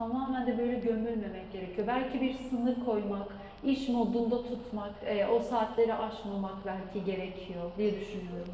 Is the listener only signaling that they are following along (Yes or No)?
No